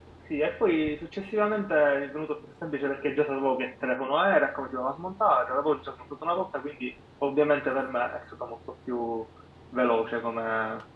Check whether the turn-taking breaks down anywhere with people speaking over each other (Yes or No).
No